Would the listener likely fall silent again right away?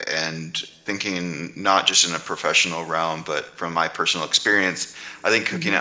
Yes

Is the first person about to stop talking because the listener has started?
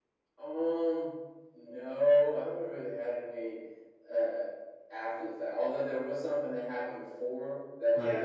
No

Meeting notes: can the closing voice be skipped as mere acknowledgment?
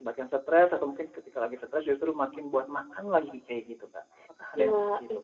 No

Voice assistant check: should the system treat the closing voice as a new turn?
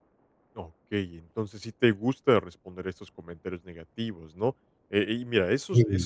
No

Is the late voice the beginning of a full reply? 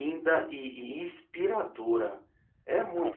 Yes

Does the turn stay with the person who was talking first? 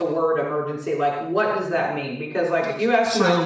Yes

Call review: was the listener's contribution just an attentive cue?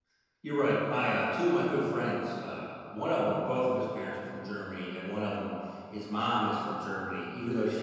Yes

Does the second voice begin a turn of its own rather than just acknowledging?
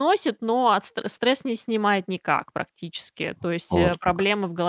No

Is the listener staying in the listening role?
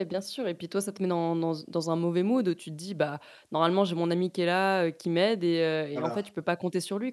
Yes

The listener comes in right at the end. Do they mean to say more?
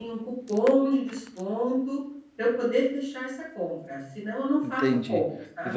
Yes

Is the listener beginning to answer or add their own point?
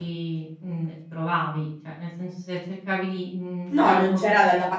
Yes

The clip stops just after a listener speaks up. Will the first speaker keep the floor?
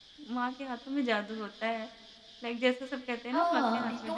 No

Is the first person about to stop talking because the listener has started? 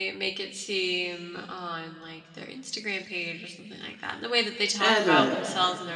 No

